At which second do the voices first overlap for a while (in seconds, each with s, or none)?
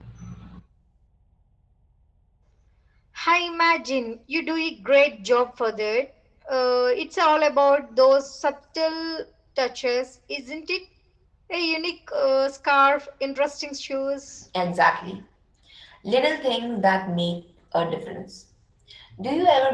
none